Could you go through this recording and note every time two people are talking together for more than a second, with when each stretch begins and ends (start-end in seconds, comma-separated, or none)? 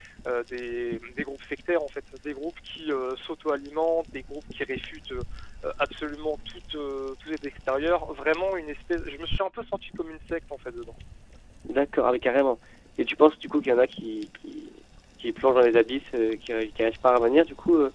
none